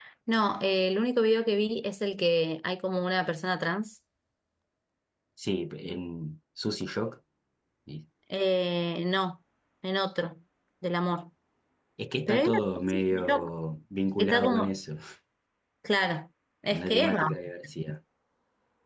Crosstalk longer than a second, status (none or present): present